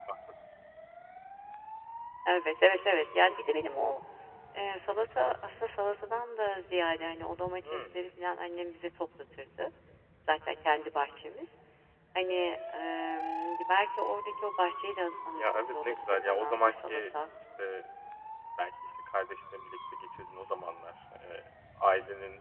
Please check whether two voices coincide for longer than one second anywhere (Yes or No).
Yes